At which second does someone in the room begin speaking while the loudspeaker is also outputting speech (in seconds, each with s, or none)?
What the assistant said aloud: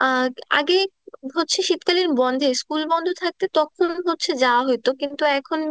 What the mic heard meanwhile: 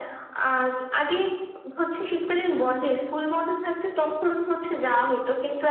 none